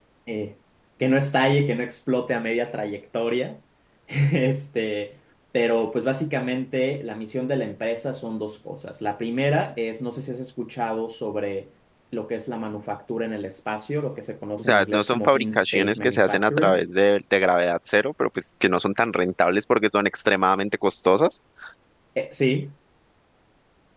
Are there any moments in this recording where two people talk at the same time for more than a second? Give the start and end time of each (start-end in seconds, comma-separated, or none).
14.6-16.8